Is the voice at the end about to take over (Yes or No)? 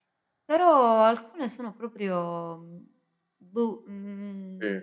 No